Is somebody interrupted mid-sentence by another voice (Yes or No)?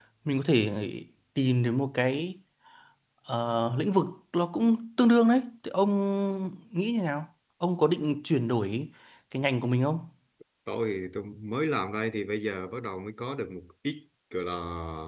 No